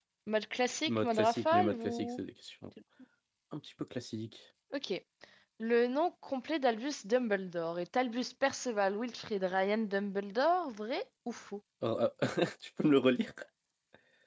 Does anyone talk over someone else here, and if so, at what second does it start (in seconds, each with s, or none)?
0.9 s